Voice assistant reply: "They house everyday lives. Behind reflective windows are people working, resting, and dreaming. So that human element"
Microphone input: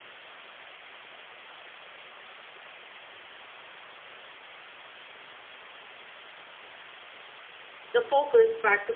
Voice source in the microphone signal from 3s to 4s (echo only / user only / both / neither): neither